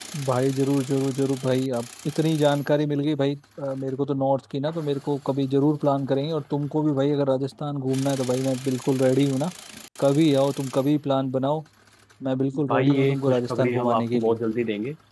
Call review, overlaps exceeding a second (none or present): present